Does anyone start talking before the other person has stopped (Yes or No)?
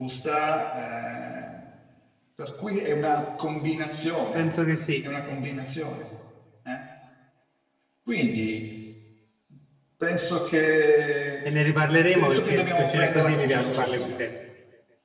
Yes